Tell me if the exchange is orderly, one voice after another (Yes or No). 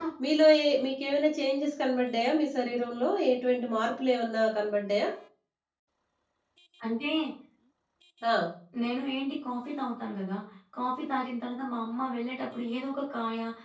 Yes